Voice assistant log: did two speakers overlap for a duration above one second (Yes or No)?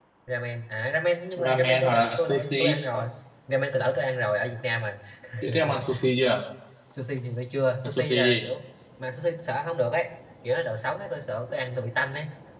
Yes